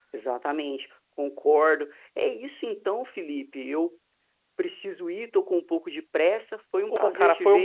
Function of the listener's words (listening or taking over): taking over